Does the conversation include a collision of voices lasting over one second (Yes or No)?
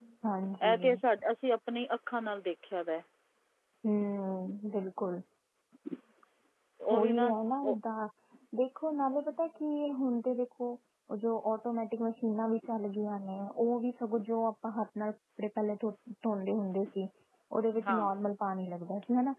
No